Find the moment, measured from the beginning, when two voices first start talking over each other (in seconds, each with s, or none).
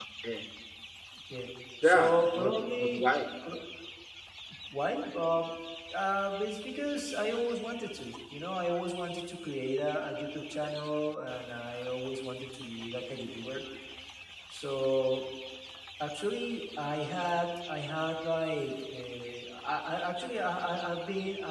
1.8 s